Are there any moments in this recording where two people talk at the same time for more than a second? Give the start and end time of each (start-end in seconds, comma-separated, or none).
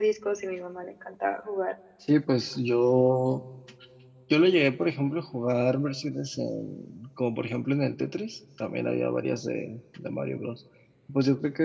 none